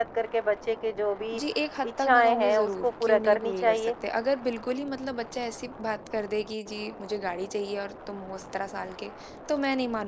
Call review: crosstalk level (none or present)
present